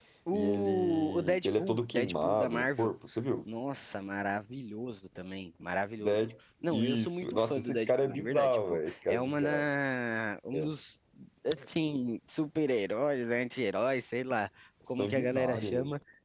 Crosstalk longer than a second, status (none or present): present